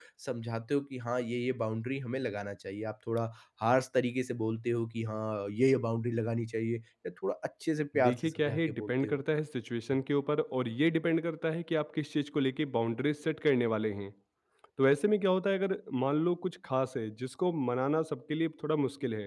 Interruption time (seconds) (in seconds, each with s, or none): 7.9 s